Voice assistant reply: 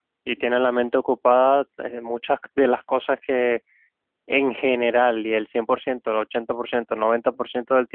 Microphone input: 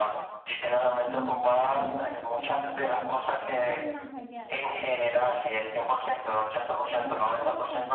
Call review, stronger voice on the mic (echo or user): echo